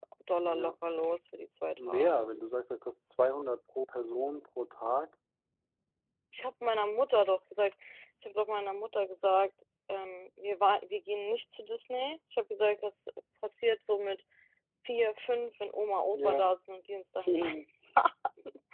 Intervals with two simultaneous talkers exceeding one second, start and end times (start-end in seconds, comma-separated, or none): none